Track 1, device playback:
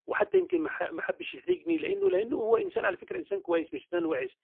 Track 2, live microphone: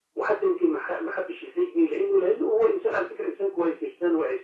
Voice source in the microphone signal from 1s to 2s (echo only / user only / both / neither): echo only